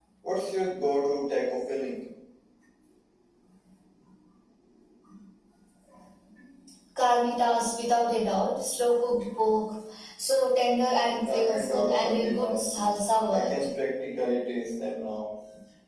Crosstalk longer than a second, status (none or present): present